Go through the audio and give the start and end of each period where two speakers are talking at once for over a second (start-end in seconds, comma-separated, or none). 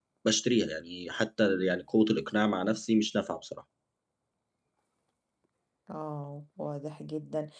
none